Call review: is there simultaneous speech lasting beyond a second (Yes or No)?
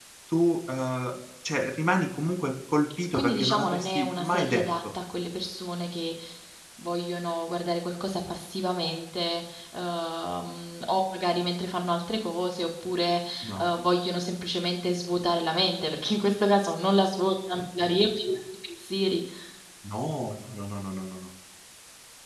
Yes